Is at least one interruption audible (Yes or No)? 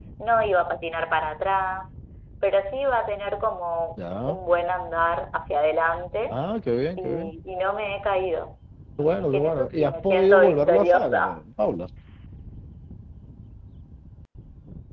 Yes